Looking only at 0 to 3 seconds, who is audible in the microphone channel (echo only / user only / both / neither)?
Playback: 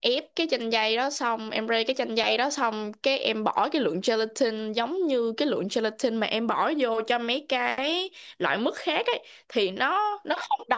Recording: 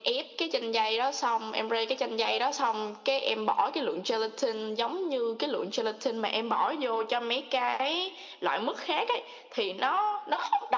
echo only